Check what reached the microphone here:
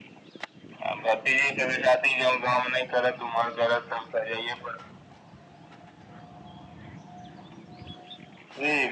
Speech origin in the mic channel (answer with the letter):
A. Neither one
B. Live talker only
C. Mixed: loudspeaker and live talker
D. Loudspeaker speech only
D